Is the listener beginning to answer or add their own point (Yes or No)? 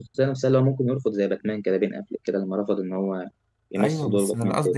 Yes